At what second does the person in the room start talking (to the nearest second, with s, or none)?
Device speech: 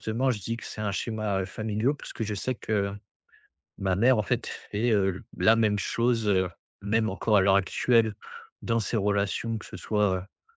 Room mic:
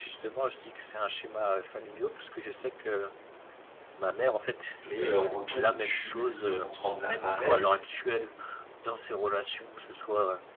5 s